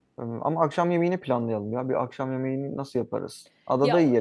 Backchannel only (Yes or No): No